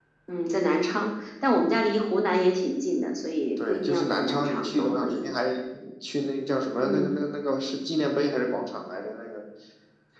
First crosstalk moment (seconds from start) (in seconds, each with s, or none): 3.6 s